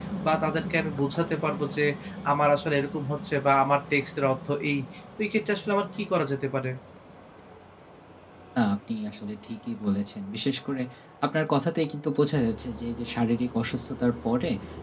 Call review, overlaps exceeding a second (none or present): none